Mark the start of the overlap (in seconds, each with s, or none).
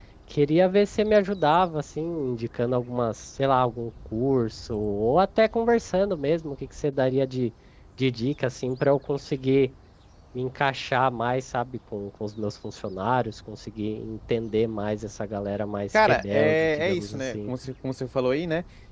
15.9 s